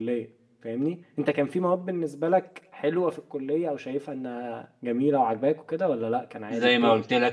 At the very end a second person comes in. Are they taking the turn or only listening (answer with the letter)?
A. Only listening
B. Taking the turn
B